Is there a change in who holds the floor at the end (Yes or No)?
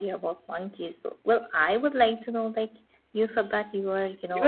Yes